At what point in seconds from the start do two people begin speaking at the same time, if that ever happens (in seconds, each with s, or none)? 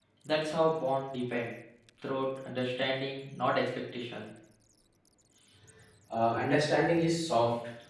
none